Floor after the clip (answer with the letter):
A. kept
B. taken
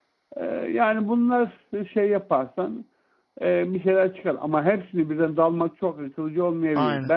A